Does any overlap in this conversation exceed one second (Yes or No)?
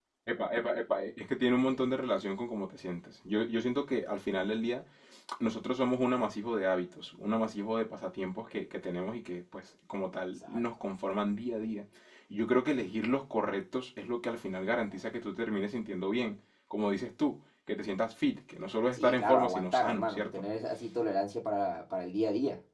Yes